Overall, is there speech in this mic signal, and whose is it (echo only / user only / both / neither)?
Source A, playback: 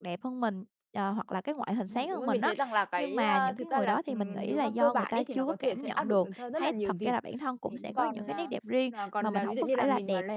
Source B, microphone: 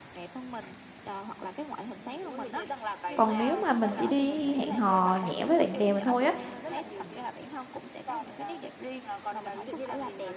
both